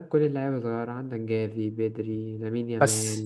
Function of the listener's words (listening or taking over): listening